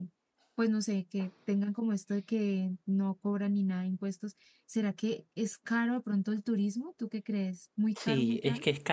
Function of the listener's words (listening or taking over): taking over